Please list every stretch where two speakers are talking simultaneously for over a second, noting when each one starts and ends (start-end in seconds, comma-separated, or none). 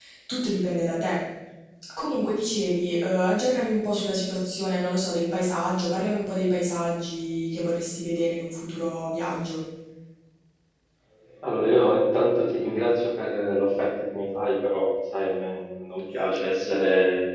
none